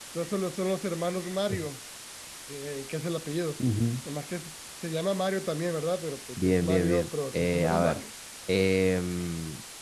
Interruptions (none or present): present